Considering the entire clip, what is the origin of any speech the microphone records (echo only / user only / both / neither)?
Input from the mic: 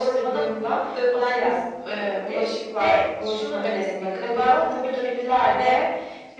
echo only